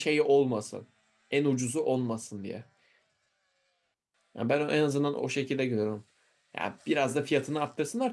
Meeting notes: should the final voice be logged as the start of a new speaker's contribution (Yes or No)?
No